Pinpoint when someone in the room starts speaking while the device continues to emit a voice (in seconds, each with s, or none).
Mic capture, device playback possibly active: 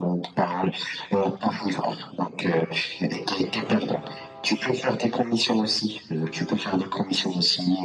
none